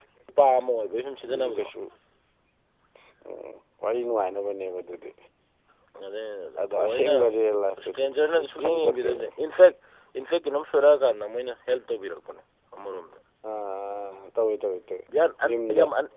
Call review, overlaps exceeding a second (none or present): present